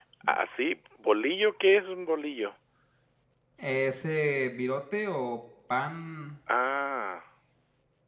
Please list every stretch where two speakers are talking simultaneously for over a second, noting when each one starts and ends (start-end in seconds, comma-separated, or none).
none